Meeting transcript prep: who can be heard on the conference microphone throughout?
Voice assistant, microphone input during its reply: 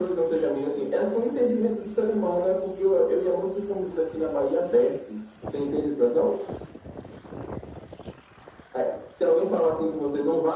echo only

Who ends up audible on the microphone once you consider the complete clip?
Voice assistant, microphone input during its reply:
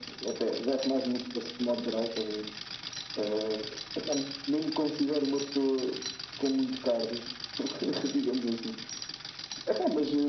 echo only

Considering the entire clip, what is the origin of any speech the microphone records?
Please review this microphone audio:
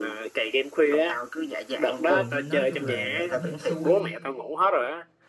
both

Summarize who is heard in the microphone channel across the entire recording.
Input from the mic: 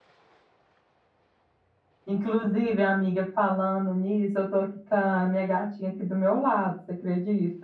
user only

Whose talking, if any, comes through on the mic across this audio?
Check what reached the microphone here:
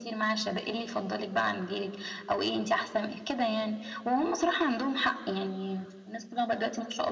echo only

